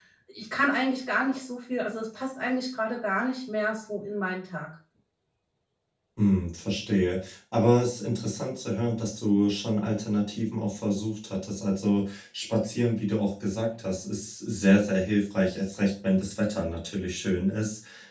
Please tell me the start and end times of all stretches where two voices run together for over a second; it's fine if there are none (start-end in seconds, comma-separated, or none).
none